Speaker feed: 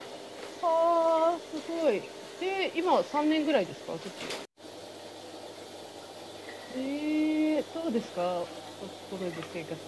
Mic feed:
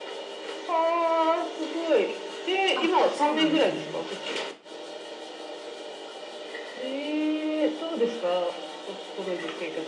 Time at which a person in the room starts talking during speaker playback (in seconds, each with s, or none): 2.7 s